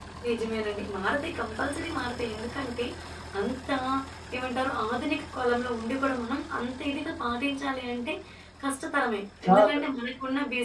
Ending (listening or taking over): listening